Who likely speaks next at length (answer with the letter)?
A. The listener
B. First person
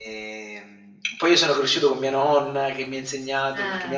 B